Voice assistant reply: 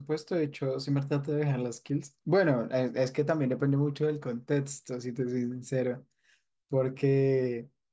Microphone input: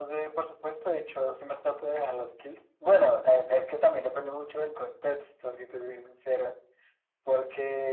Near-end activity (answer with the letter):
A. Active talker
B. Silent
B